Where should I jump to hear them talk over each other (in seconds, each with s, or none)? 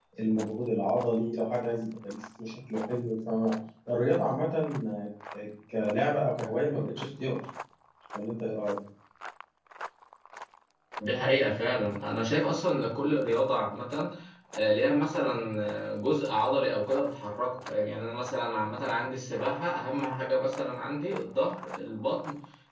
none